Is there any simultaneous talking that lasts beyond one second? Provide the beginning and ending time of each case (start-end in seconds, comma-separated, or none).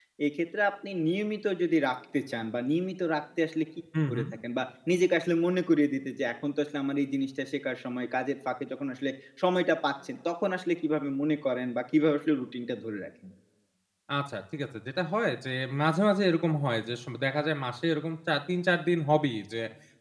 none